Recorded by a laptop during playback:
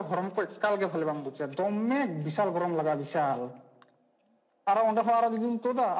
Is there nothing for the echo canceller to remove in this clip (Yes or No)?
No